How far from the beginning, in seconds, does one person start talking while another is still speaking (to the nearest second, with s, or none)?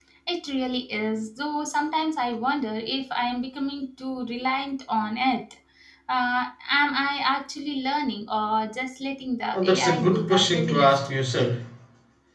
10 s